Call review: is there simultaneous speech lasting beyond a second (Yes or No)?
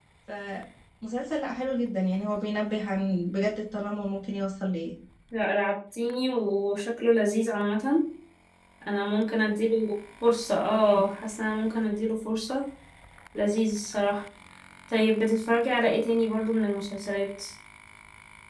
No